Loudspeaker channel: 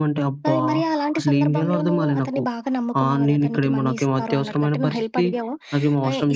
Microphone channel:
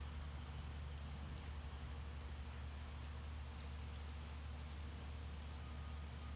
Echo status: none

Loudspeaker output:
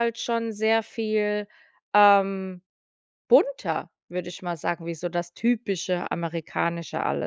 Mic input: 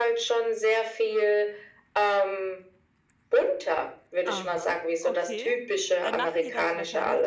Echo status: present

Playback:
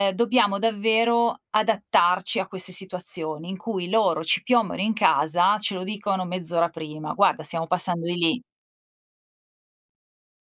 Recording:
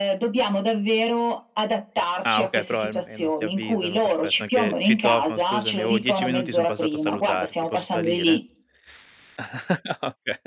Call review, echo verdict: present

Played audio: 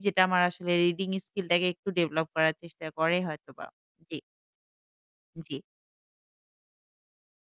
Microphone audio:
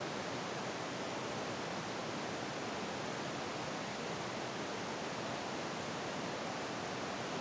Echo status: none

